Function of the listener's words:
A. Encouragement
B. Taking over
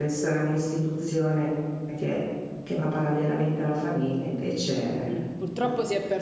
B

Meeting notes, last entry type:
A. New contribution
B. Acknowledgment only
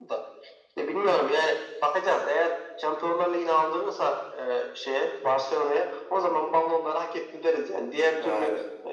B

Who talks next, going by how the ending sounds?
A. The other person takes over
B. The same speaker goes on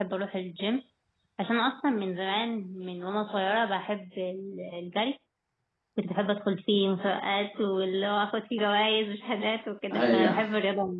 B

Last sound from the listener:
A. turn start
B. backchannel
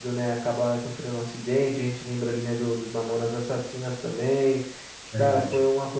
B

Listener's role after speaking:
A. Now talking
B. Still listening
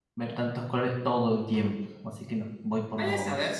A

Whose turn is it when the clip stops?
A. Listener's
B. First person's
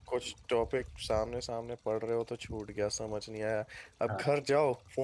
B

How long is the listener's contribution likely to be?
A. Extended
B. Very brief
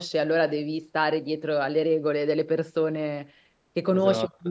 B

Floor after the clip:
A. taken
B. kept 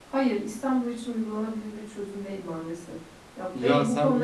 A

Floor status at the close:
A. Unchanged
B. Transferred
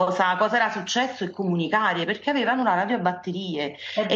A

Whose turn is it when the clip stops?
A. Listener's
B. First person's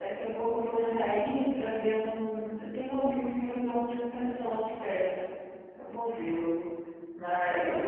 B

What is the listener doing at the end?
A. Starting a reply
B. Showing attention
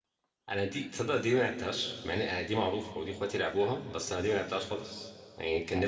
A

